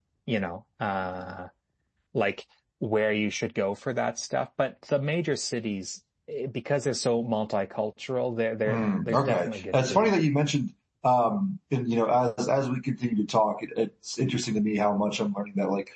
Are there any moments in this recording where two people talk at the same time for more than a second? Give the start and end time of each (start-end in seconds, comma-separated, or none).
8.7-10.2